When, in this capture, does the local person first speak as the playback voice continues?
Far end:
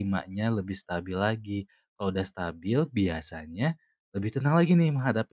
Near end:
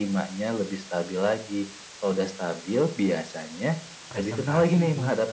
4.1 s

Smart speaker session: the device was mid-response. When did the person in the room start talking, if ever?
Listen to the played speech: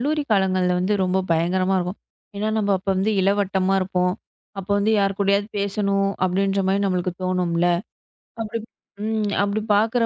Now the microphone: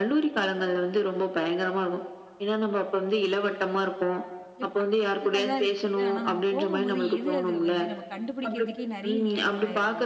4.5 s

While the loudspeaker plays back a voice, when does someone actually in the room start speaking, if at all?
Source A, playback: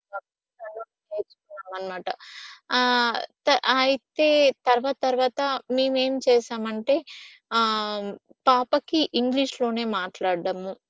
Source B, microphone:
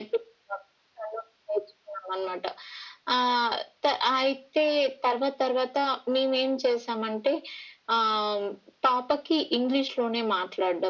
none

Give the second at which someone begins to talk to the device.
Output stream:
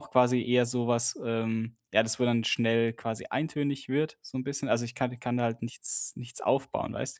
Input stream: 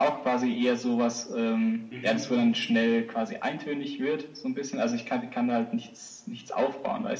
1.9 s

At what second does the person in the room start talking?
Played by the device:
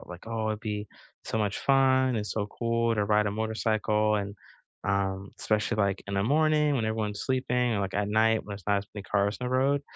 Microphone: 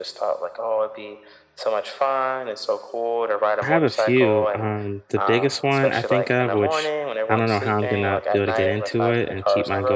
3.6 s

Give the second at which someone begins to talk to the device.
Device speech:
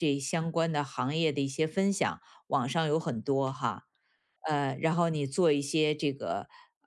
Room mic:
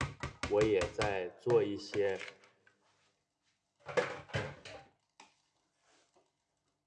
0.4 s

